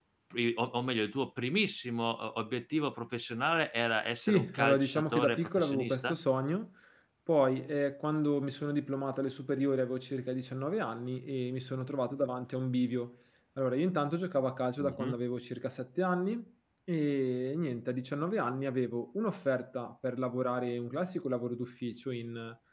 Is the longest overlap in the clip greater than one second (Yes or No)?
Yes